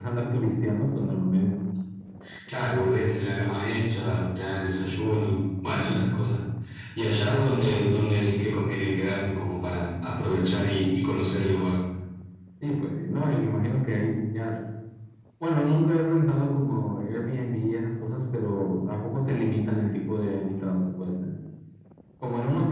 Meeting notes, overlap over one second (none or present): none